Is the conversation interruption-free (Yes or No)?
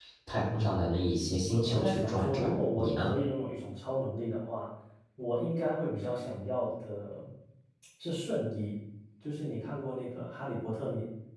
No